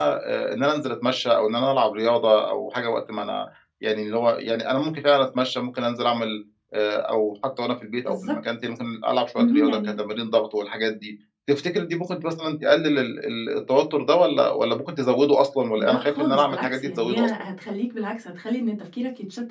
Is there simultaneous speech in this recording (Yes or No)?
Yes